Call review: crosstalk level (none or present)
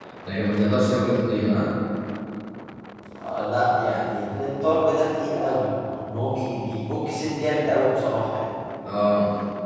none